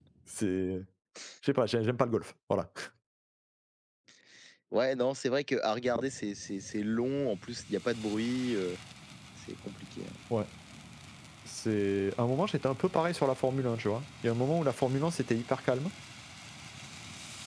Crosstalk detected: No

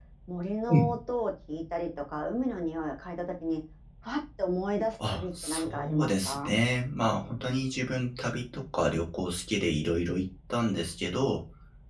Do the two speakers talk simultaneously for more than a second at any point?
Yes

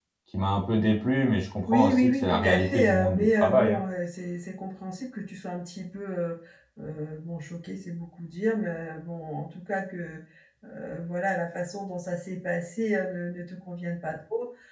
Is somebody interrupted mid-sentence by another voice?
Yes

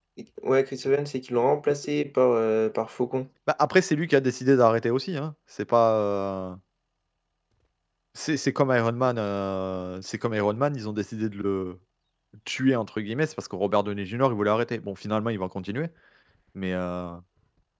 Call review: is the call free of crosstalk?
Yes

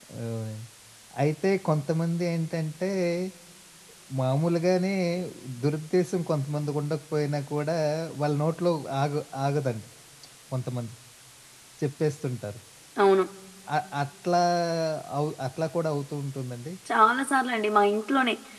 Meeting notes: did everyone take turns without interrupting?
Yes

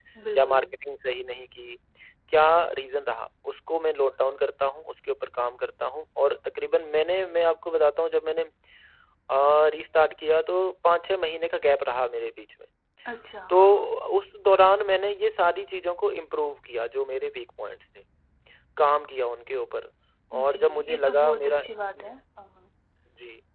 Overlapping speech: Yes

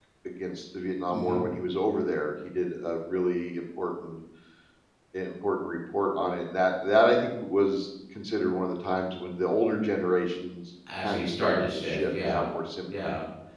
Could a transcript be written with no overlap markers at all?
No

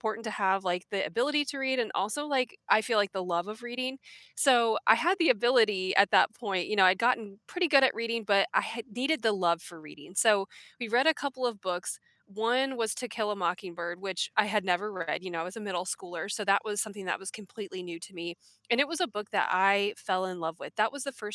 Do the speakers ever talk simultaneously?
No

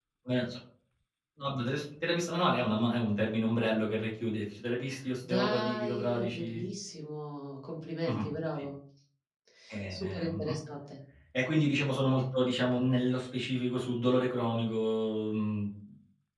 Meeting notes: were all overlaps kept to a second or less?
No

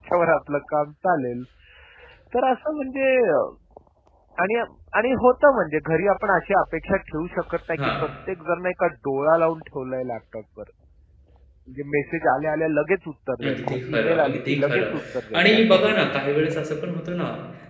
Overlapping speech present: Yes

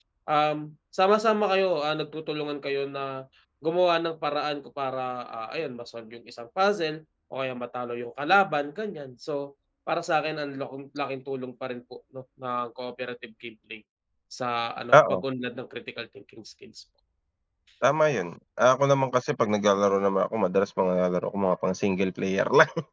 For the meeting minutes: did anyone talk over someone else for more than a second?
No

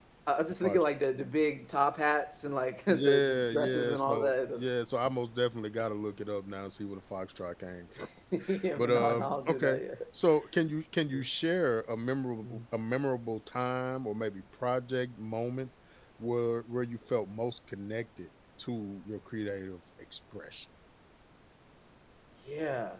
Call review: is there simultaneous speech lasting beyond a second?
Yes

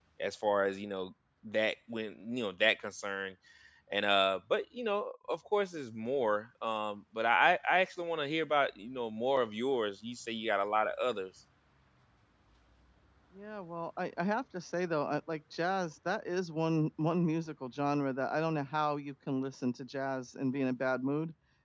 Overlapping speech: No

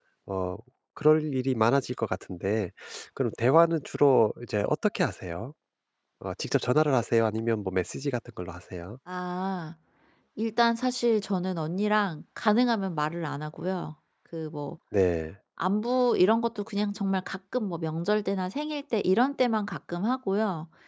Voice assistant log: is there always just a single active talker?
Yes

